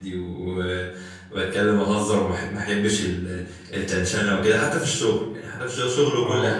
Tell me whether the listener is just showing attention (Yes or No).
Yes